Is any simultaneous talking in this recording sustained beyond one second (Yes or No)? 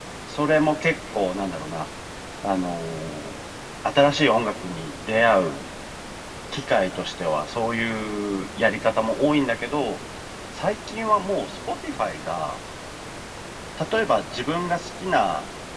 No